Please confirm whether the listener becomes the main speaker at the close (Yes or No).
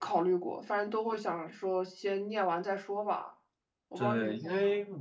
Yes